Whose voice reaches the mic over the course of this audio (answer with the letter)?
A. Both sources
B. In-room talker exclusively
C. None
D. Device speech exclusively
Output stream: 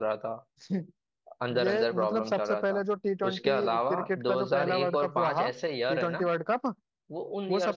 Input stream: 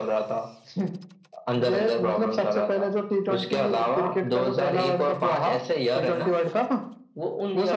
D